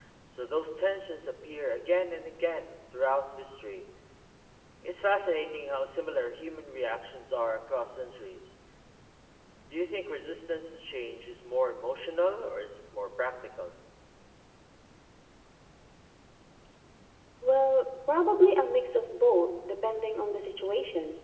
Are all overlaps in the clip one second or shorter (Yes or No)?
Yes